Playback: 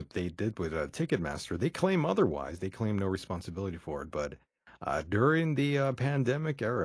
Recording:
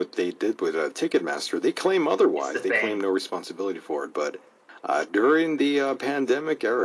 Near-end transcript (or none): It's the thing.